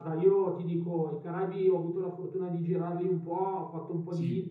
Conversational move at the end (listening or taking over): listening